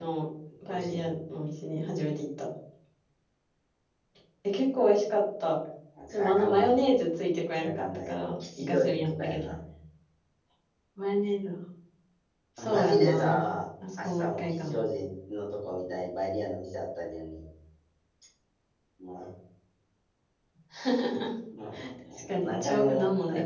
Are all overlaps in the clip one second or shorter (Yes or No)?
No